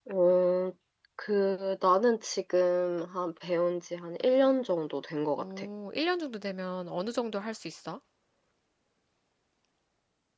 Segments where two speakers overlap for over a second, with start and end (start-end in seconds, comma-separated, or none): none